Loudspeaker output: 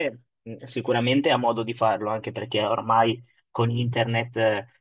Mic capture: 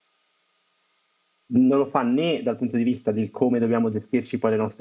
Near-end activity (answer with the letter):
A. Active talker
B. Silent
A